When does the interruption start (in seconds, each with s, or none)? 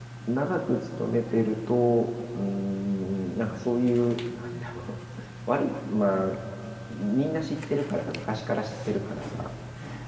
none